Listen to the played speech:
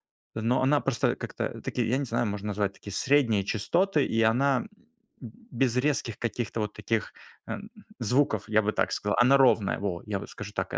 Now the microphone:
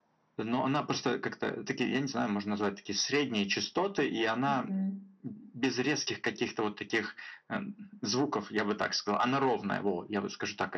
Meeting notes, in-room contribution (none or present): present